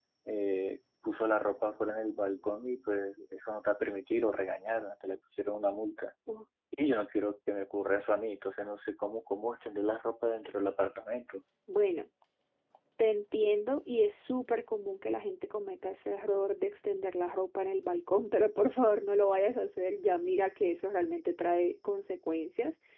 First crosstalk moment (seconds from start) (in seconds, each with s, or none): none